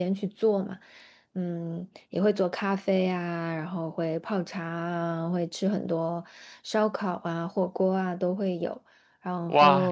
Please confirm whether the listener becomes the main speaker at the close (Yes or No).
Yes